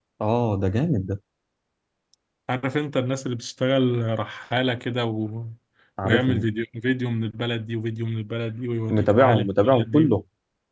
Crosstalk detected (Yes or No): Yes